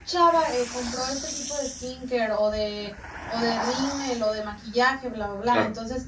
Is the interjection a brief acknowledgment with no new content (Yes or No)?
Yes